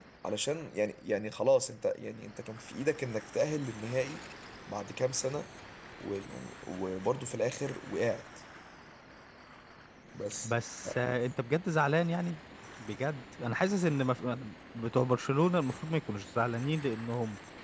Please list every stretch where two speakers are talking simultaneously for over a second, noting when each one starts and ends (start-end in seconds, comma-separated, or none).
none